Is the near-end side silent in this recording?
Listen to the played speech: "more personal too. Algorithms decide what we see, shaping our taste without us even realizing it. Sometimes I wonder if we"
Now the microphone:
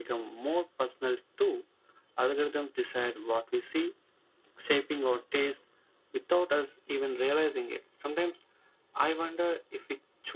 Yes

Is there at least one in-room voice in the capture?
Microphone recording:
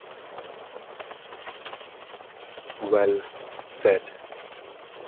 Yes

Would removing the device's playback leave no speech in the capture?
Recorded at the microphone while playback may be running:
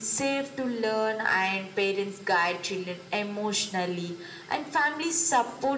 Yes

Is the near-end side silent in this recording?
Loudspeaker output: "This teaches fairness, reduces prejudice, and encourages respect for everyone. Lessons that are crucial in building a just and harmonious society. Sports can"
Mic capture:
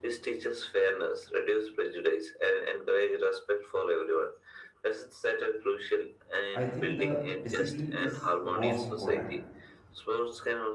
No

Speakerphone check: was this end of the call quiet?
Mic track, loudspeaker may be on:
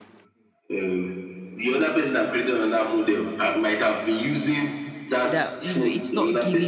No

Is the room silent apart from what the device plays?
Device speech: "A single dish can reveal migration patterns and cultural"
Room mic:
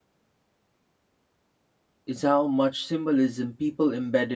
No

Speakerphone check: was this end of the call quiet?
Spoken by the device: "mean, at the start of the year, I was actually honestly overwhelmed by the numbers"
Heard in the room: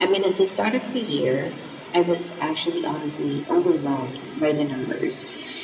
Yes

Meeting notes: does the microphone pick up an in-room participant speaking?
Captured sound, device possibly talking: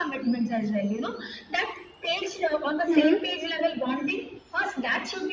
Yes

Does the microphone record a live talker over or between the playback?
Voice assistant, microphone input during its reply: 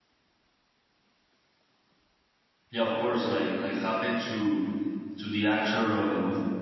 Yes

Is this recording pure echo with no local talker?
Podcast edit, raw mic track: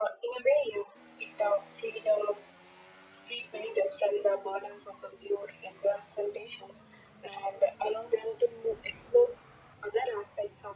Yes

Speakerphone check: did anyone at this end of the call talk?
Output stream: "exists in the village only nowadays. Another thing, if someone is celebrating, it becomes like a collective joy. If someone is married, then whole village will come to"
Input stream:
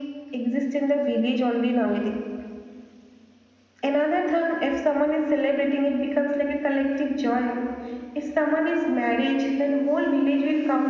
No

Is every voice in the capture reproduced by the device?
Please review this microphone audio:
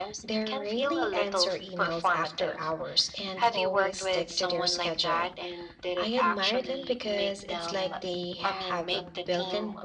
No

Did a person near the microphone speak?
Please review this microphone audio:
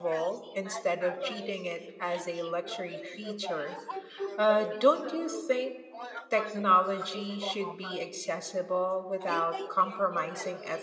Yes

